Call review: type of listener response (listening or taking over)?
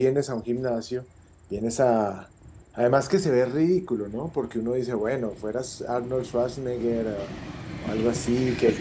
taking over